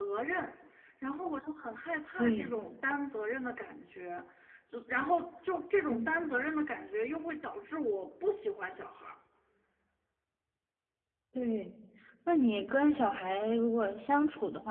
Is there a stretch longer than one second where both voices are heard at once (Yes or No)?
No